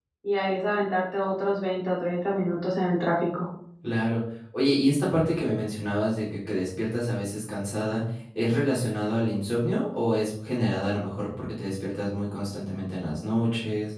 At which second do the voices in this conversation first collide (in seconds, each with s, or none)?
none